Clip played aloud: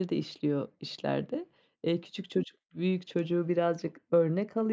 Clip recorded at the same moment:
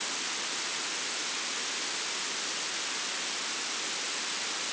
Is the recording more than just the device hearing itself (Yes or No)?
No